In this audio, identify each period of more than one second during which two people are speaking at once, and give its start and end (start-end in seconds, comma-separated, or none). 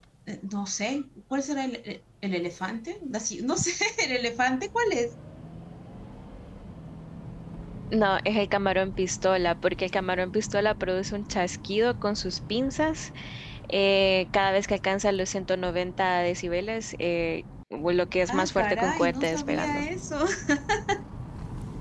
18.3-19.8